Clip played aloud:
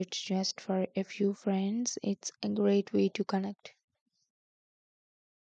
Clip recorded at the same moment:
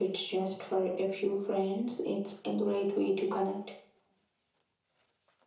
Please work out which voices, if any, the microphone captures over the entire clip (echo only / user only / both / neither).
echo only